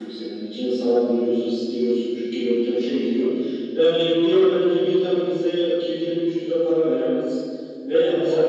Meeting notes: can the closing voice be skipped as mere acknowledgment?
Yes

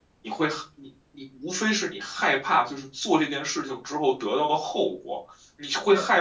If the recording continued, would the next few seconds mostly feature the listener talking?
No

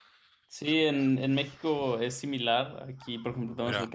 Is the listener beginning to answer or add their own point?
No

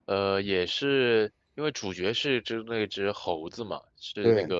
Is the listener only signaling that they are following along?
Yes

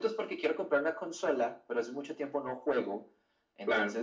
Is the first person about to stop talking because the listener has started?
No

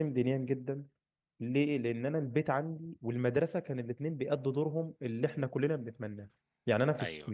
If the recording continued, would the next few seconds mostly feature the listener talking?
No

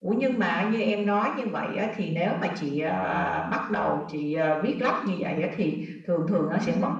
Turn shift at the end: No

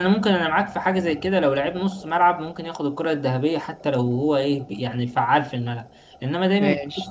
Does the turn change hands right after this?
No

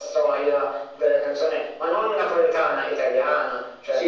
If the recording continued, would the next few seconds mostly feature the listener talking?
Yes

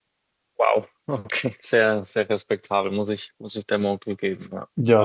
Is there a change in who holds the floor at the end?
Yes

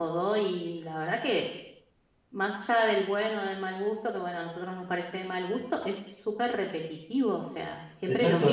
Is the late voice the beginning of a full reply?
Yes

